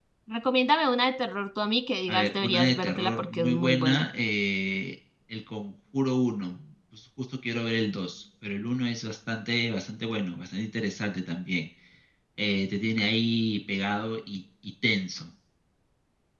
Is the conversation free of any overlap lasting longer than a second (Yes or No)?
No